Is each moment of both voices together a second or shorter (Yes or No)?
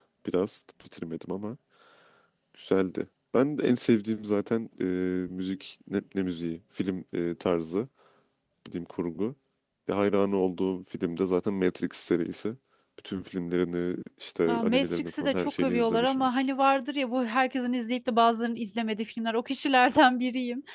No